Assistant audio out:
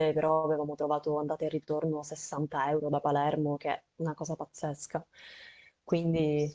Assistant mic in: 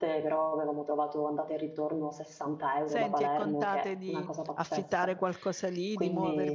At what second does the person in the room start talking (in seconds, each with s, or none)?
2.9 s